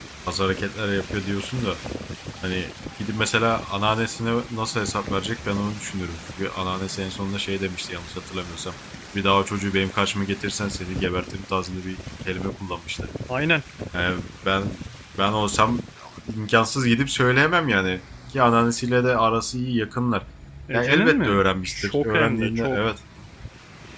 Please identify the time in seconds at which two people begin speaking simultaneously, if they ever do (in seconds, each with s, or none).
20.7 s